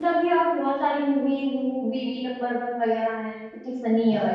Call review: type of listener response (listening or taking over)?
taking over